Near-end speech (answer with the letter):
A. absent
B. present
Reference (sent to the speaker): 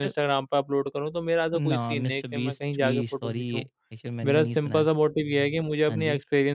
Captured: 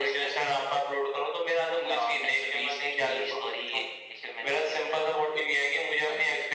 A